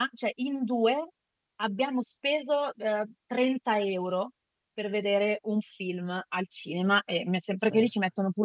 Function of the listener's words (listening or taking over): listening